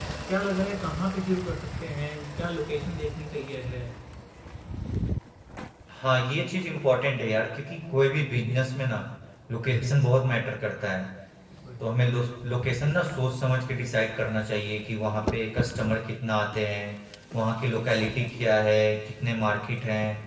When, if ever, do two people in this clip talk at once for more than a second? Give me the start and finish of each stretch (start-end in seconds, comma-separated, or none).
none